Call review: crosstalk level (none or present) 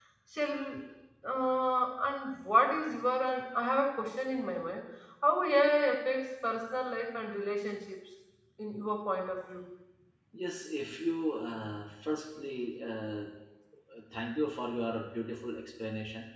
none